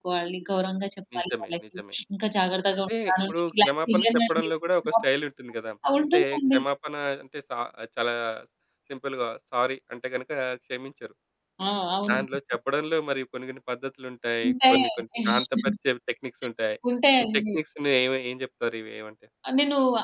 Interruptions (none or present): present